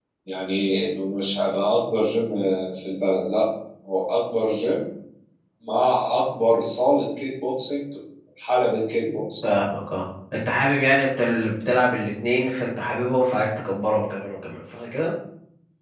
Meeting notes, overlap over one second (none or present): none